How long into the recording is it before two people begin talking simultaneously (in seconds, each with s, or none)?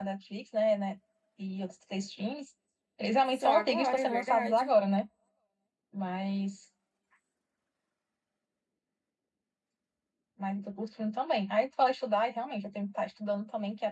3.3 s